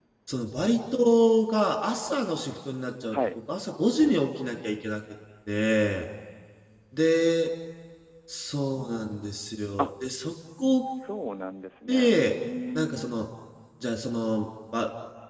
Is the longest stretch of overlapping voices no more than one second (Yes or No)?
Yes